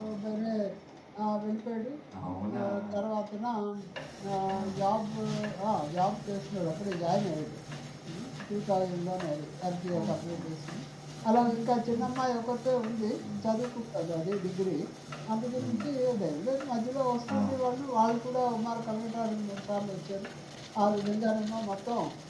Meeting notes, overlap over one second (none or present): none